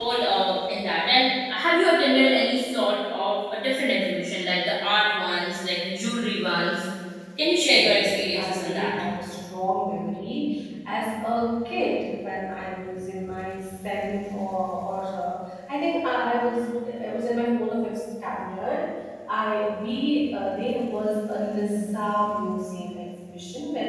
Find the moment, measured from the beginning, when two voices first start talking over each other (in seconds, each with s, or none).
7.7 s